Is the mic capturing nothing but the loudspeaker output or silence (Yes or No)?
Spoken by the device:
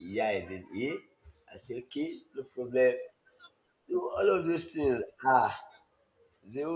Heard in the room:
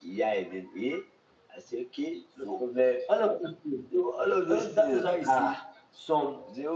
No